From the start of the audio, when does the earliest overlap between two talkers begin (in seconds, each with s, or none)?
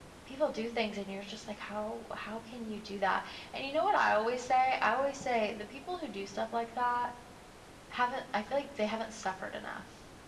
none